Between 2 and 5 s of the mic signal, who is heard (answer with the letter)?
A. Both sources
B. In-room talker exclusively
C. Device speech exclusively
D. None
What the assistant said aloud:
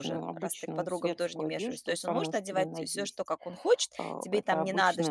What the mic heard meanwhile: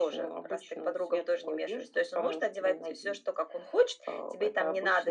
C